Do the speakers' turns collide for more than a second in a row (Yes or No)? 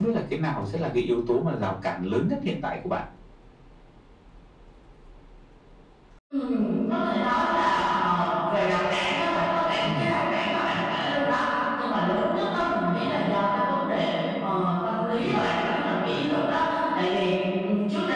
No